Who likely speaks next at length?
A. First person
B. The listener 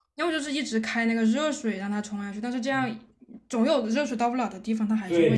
B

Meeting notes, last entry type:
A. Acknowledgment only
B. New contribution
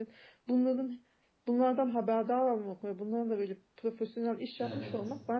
A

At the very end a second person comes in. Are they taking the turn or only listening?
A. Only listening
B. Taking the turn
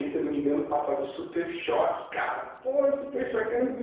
B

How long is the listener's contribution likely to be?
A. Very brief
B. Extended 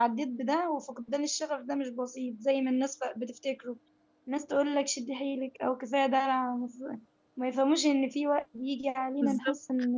A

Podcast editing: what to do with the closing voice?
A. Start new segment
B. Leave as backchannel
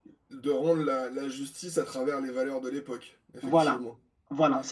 A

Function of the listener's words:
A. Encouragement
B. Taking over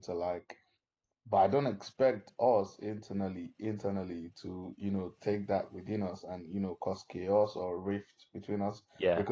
A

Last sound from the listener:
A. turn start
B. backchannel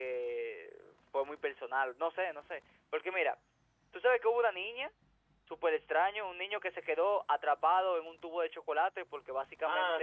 A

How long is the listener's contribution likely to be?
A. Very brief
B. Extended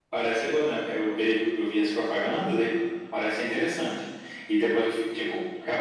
A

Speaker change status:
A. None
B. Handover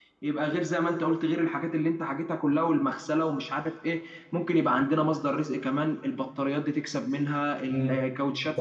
B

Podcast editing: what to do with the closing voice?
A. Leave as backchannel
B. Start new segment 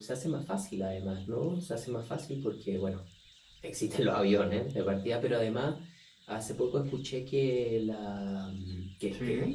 A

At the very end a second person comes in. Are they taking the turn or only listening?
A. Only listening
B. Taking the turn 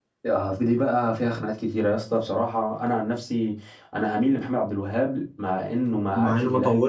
B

